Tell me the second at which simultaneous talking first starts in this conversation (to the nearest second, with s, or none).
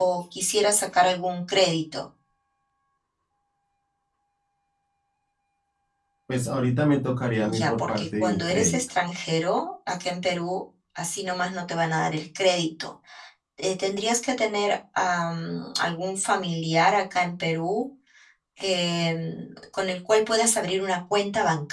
7 s